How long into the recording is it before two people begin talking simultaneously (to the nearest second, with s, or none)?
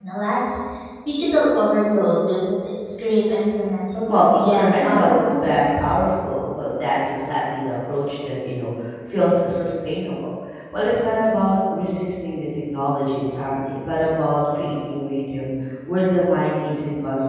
4 s